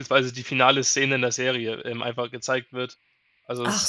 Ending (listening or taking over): taking over